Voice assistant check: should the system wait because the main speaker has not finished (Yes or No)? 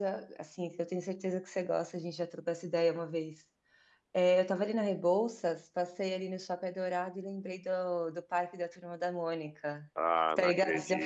No